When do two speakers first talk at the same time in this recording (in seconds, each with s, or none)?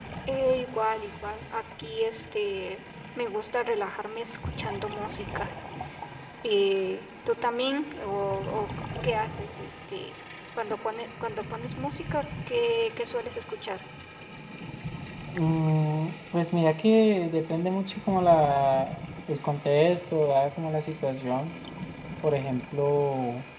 none